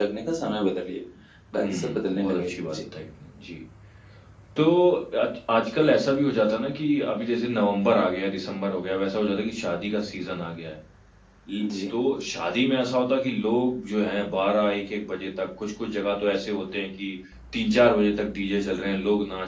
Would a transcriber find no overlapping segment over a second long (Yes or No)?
No